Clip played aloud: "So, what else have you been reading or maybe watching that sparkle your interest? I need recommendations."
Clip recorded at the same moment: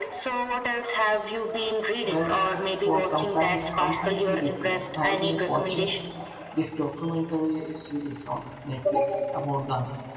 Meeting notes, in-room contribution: present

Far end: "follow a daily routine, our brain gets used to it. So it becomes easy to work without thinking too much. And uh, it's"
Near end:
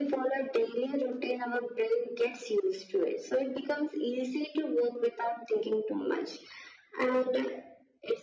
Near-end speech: none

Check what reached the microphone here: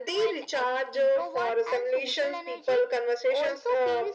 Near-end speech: none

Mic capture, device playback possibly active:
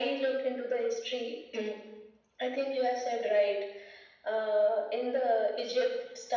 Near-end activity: none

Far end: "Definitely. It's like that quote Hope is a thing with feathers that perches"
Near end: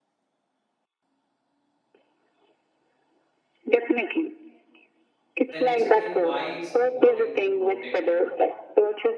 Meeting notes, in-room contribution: present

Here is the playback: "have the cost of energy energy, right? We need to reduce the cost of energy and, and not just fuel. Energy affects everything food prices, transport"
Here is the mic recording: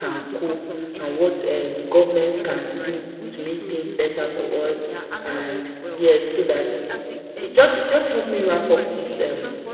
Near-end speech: present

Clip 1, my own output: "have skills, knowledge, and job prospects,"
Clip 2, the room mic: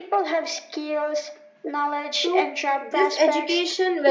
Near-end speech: present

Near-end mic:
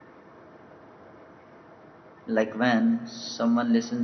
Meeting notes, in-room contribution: present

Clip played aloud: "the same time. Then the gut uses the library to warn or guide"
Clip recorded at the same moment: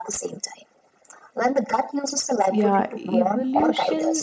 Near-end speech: present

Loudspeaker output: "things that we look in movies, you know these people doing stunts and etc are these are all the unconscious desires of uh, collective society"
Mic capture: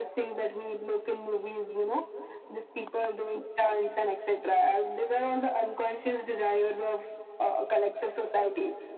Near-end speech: none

